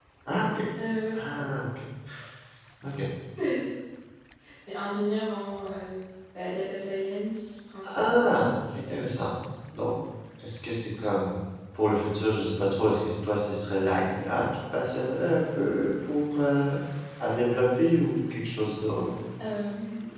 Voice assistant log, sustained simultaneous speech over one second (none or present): none